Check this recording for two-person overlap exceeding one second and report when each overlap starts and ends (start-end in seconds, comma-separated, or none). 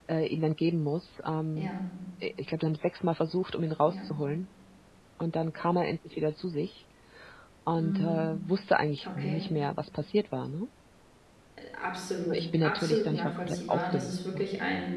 12.3-14.4